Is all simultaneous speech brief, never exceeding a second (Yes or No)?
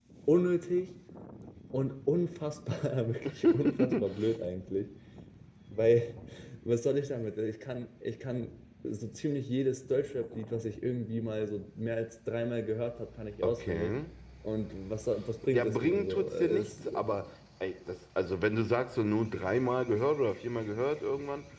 No